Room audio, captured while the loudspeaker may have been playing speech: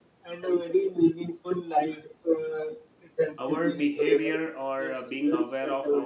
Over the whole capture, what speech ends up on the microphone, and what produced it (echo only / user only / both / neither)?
both